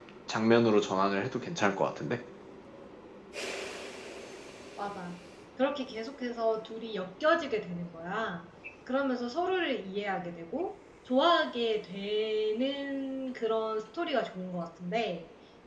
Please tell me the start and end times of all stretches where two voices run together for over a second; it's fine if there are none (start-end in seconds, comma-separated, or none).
none